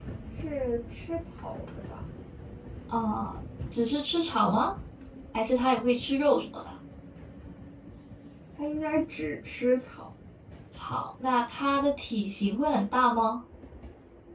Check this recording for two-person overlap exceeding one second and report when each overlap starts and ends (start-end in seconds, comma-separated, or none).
none